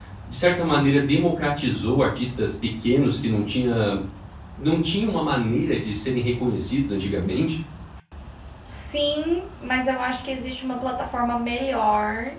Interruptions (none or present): none